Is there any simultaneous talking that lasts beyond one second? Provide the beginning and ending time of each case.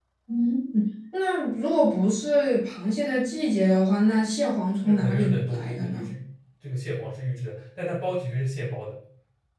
4.8-6.1

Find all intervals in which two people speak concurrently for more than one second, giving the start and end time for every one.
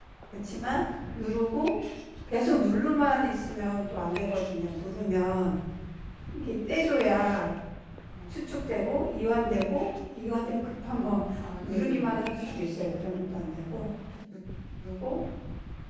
11.6-13.1

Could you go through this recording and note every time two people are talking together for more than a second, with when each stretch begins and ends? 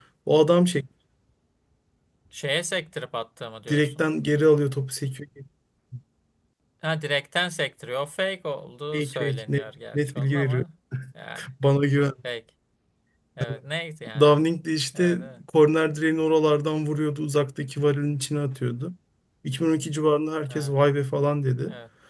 8.9-10.6

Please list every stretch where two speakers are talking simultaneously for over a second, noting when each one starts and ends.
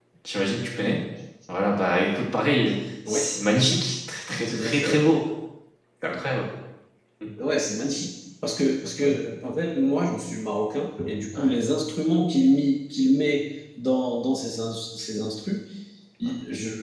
none

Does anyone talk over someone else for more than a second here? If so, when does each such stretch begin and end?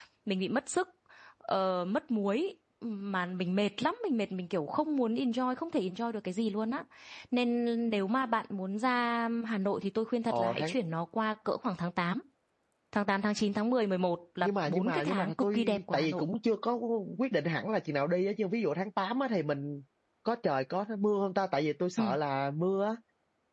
14.4-16.2

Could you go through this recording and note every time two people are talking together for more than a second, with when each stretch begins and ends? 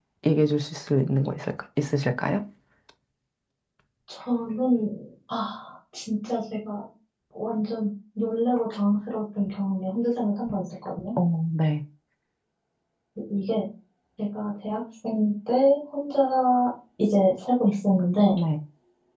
none

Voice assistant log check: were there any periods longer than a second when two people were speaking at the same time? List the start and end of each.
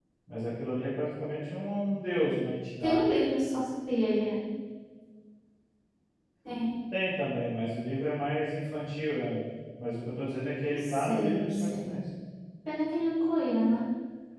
10.8-12.0

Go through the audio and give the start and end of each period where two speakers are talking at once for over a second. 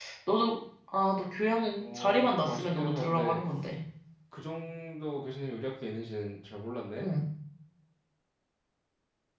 1.8-3.4

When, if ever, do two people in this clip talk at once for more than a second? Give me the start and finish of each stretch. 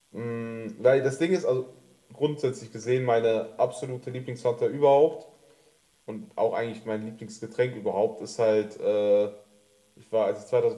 none

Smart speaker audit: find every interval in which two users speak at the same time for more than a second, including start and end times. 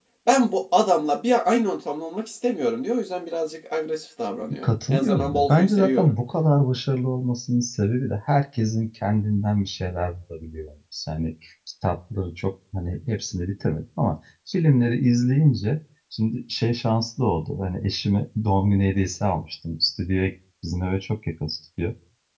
4.6-6.1

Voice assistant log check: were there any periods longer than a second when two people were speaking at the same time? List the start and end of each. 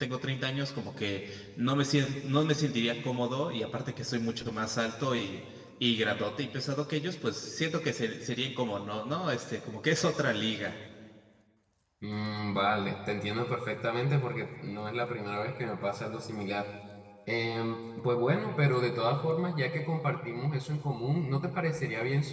none

